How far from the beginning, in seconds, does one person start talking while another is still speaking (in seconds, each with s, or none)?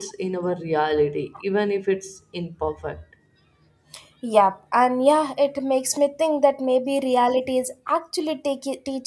none